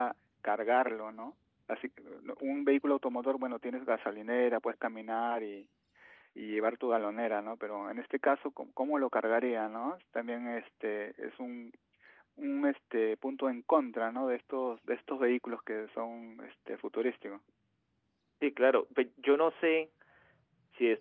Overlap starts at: none

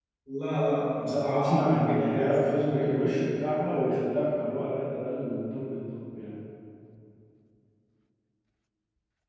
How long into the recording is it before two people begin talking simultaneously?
1.0 s

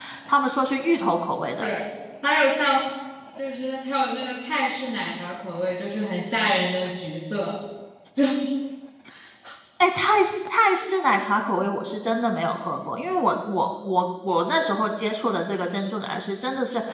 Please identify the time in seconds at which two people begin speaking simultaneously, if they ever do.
none

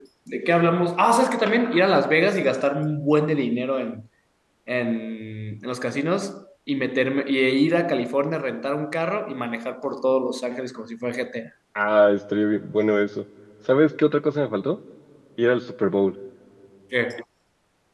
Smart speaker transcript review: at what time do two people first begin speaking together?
none

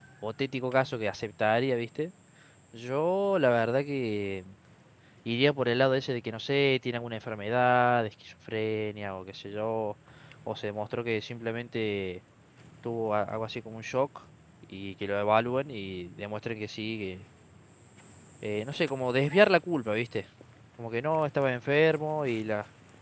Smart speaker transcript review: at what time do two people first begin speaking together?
none

